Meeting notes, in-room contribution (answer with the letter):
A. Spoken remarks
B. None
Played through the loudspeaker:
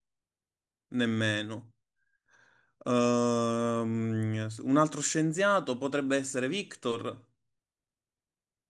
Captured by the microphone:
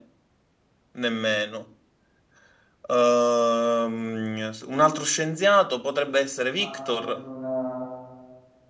A